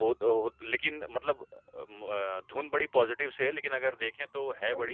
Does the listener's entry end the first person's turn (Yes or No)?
Yes